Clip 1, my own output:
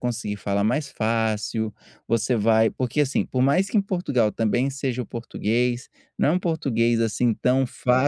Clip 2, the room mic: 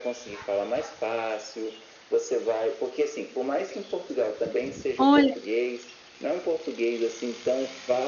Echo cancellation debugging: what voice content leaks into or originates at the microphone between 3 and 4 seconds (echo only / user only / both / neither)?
echo only